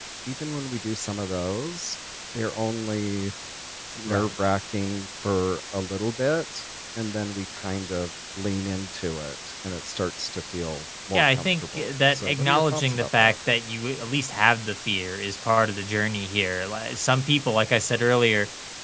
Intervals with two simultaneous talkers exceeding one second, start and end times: 11.1-13.3

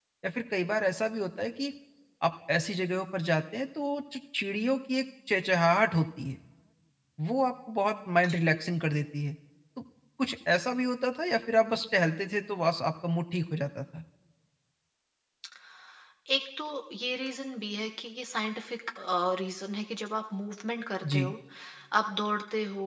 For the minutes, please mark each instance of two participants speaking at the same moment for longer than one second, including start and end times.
none

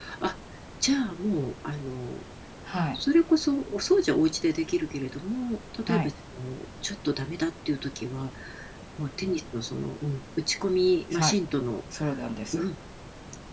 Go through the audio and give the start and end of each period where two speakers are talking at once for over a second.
none

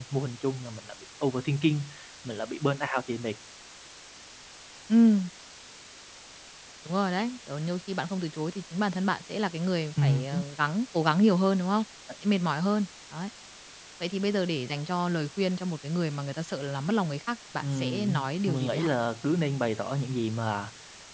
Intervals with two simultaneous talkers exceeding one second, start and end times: 17.6-18.9

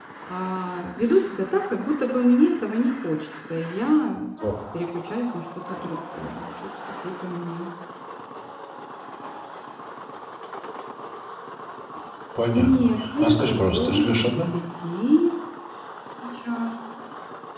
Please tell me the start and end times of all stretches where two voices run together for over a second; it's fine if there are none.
12.5-14.4

